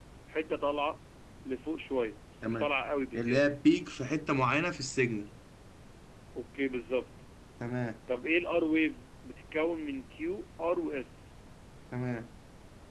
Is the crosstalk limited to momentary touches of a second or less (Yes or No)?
Yes